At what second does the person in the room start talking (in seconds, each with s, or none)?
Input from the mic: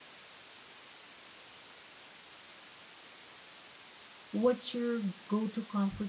4.3 s